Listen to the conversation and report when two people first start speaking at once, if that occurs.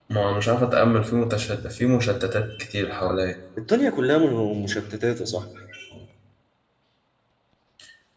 none

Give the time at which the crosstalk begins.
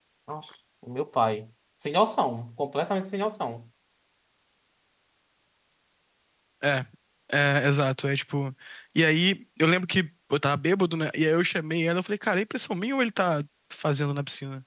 none

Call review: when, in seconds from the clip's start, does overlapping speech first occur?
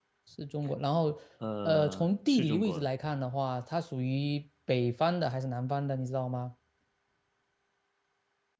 2 s

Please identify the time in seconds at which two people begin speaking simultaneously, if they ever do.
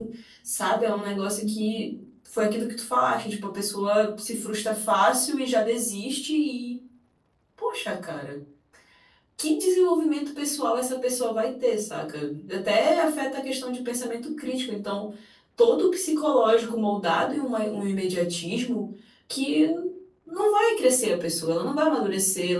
none

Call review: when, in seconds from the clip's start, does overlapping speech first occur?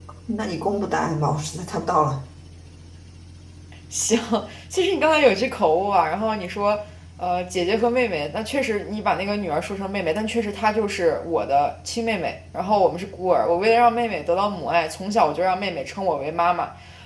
none

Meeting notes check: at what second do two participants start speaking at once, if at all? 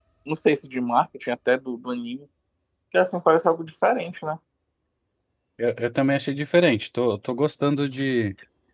none

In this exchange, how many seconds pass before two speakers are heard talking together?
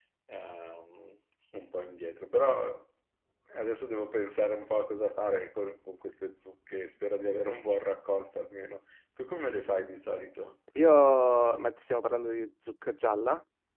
none

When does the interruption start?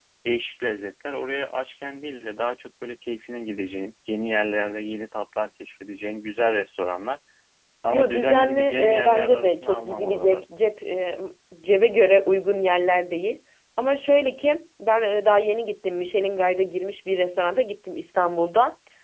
8 s

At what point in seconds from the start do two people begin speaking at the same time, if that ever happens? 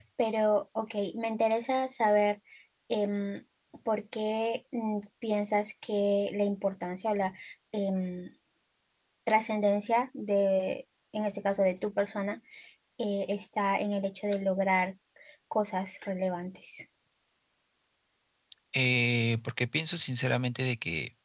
none

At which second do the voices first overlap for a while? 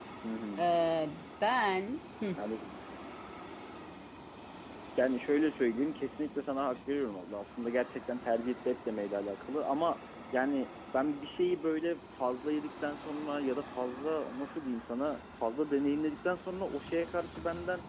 none

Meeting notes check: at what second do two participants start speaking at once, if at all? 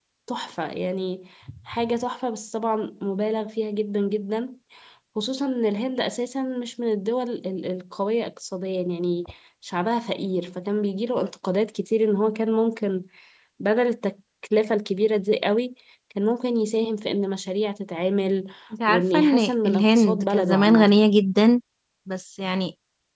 19 s

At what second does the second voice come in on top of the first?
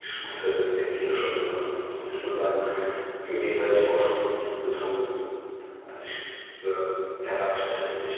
none

